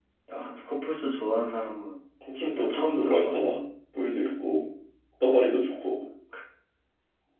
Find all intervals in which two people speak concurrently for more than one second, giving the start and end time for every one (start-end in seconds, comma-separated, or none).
2.4-3.6